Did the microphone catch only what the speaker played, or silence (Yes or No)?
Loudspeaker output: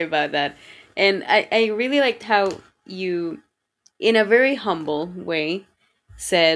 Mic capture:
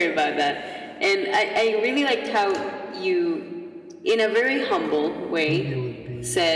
No